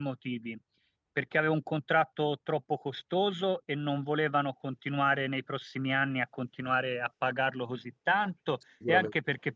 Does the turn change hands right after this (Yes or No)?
No